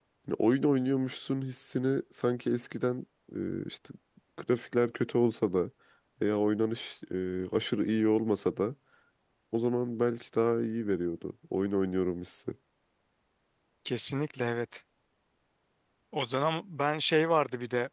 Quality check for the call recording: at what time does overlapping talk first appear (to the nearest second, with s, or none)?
none